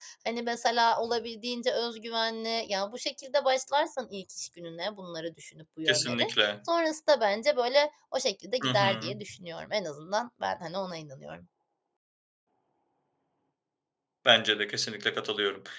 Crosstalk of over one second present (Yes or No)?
No